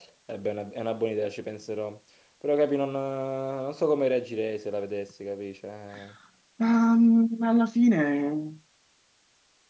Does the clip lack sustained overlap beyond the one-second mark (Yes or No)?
Yes